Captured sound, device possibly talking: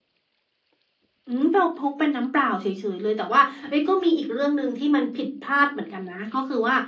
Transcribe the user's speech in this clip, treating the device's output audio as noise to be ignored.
none

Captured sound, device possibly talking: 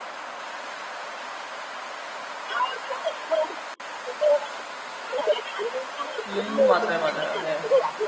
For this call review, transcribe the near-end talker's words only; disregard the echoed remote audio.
음 맞아요, 맞아요. 네.

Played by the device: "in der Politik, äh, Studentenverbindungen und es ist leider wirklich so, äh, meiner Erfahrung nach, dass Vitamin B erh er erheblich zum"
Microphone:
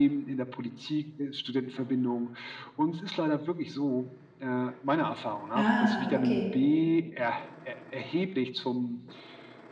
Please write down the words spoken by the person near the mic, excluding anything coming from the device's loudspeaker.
Ah, okay.

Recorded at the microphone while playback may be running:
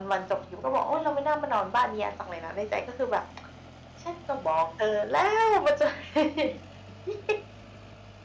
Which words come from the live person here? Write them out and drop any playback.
none

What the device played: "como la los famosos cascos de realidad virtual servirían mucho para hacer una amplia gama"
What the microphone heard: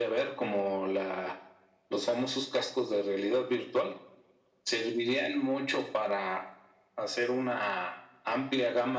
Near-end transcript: none

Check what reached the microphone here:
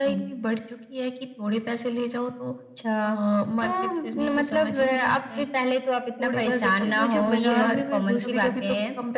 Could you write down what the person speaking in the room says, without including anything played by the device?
जब मुझे बाज़ार में मैं घुसती हूँ,

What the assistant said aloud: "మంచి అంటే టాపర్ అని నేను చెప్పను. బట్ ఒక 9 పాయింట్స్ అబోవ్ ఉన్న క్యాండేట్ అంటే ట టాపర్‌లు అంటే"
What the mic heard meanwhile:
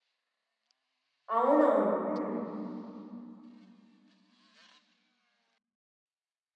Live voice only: అవునవును. హ్మ్.

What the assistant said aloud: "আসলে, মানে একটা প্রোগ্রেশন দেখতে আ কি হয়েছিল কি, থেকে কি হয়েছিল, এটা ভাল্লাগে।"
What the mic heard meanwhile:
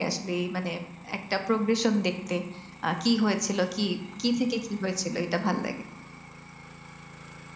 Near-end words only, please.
none

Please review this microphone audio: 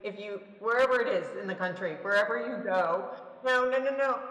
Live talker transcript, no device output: none

